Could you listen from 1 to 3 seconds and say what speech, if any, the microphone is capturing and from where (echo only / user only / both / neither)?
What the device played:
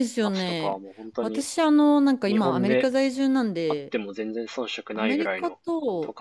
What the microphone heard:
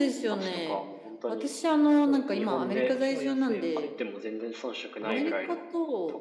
both